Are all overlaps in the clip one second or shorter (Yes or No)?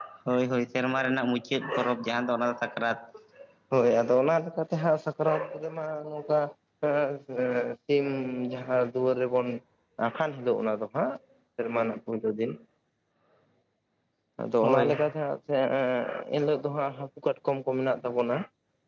Yes